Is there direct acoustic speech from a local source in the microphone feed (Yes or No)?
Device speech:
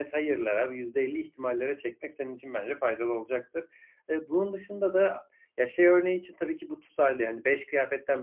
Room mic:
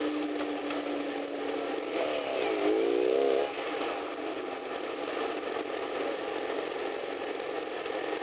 No